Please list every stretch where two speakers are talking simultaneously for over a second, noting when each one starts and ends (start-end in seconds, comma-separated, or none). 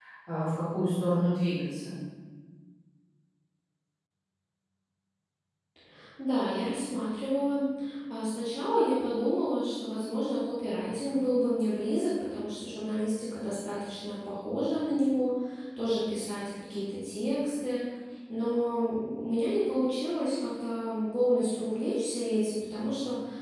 none